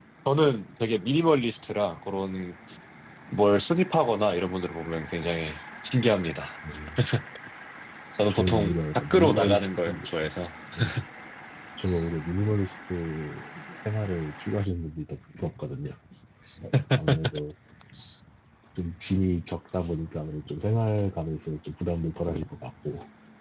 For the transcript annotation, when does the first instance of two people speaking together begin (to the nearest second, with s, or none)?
8 s